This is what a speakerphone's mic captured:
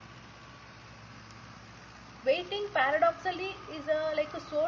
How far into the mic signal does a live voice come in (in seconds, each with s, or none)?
2.3 s